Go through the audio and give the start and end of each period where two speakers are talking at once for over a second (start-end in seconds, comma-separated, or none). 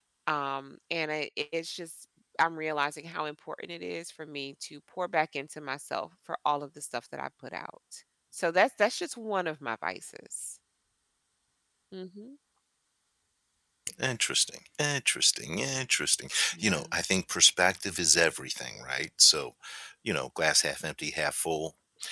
none